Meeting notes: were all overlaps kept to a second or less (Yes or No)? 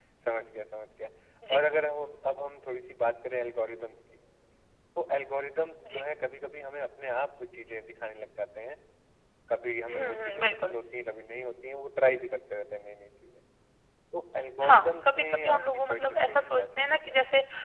No